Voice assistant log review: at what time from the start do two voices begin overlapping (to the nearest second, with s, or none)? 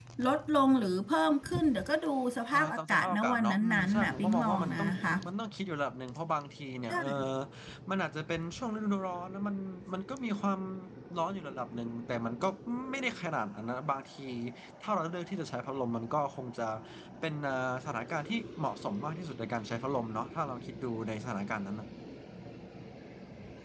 3 s